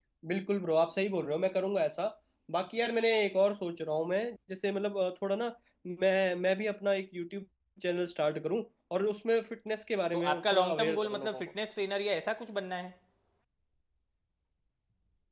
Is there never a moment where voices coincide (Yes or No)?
No